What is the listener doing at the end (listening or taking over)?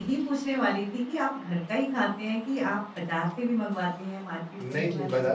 taking over